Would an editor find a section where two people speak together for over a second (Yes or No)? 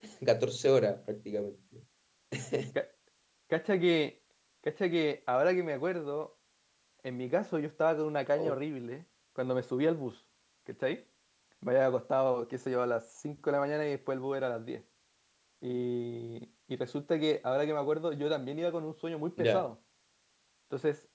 No